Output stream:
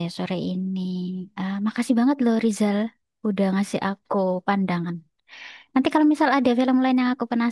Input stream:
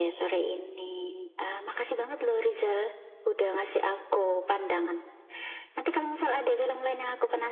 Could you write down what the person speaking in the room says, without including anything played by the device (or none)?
none